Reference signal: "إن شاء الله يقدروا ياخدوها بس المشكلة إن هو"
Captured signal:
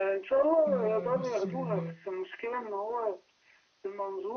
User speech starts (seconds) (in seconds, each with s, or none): 0.7 s